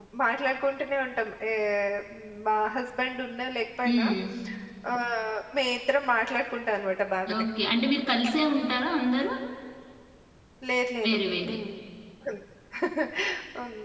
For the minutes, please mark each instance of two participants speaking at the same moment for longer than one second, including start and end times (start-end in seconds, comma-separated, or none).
none